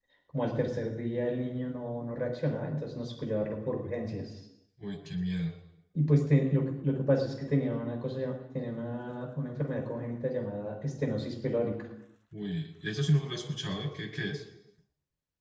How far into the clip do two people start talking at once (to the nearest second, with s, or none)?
none